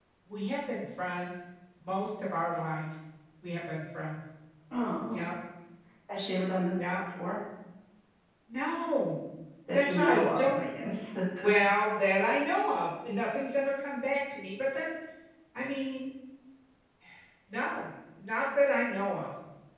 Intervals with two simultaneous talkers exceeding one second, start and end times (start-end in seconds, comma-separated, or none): 9.7-11.0